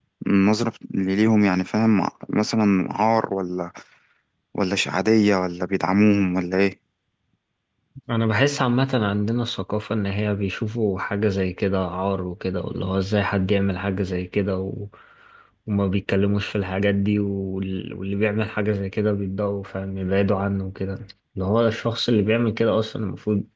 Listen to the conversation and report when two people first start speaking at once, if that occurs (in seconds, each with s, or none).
none